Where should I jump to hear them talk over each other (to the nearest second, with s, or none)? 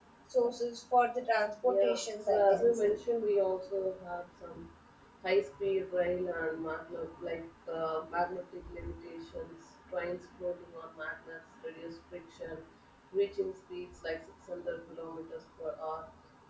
2 s